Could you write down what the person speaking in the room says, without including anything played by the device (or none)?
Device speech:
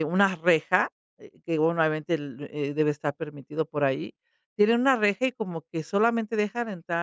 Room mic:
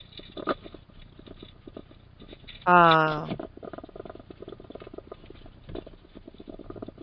Ah.